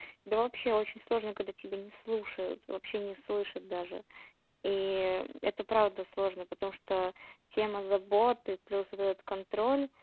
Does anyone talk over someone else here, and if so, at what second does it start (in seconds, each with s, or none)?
none